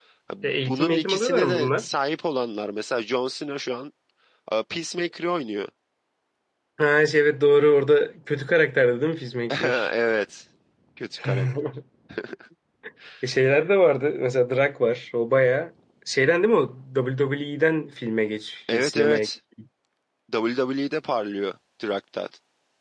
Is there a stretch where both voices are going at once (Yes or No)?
Yes